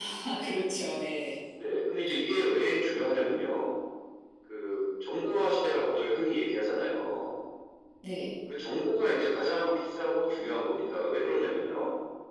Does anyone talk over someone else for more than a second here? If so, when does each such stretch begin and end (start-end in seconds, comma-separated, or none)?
none